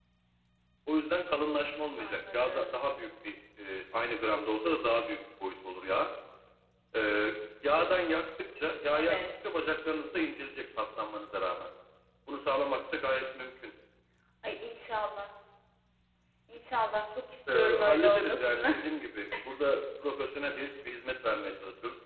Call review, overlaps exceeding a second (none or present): present